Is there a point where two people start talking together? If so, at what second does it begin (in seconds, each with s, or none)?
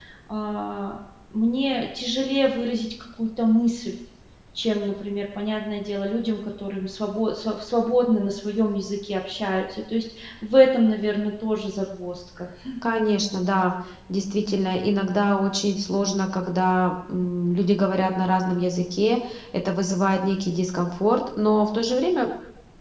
none